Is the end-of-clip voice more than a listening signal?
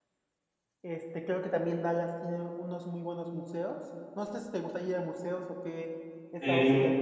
Yes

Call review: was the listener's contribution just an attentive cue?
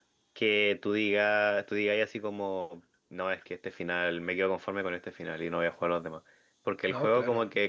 Yes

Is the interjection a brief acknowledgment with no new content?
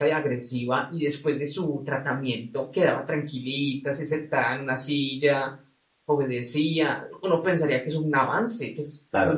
No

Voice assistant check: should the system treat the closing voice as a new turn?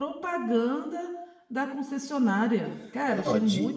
Yes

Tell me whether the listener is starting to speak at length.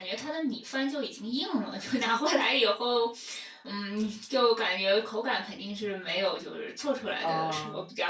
No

